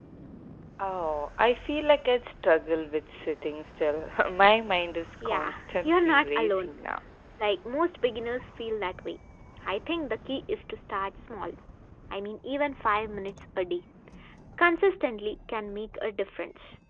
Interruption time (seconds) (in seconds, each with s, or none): 5.2 s